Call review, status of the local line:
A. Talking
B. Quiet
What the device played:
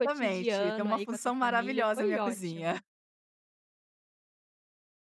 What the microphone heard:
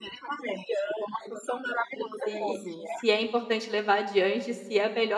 A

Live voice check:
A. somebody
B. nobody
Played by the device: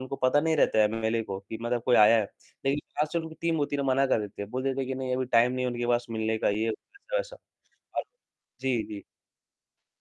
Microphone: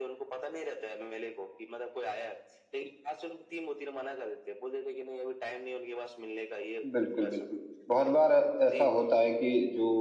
A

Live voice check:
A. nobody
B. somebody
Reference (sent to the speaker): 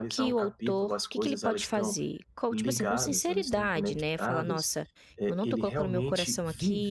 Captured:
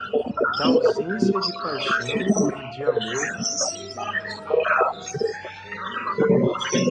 B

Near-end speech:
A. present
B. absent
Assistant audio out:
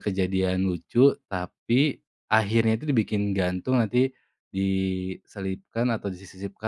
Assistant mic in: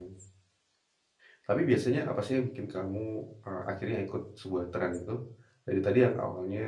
A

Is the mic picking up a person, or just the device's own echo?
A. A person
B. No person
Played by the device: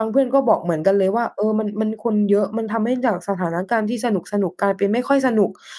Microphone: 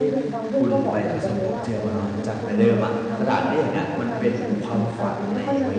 A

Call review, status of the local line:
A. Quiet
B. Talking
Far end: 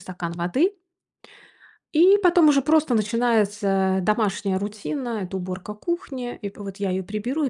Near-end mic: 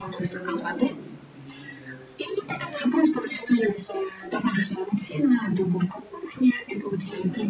B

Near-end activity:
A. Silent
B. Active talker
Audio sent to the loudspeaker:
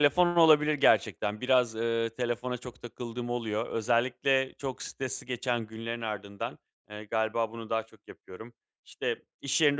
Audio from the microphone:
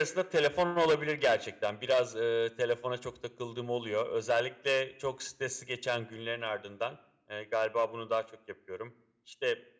A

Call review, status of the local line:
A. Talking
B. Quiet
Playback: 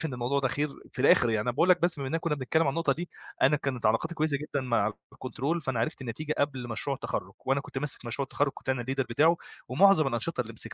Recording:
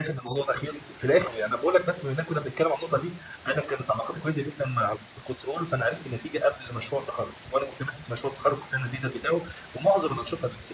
B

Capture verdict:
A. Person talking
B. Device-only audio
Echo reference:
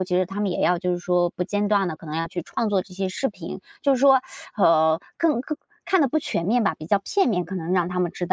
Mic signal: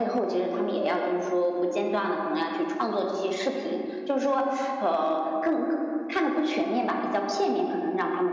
B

